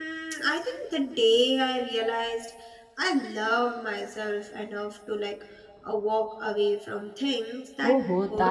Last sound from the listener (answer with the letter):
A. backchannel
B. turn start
B